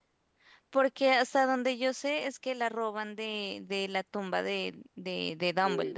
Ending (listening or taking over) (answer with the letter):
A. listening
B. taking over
B